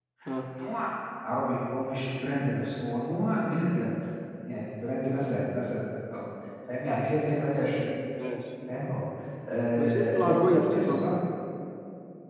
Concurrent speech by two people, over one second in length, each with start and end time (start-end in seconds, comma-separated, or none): 9.8-11.1